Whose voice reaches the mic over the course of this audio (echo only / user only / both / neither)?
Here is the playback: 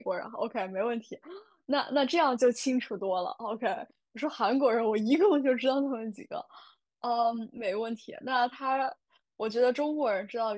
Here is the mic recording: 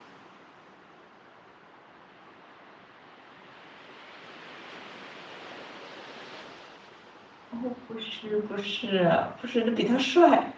user only